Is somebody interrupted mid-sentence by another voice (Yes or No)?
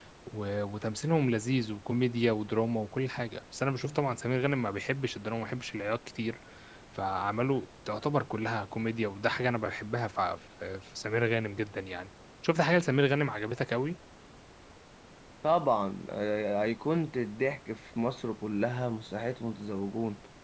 No